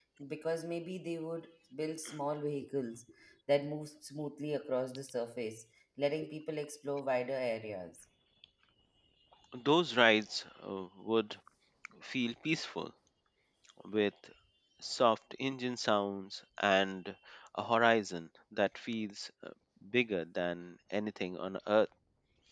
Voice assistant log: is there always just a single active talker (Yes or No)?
Yes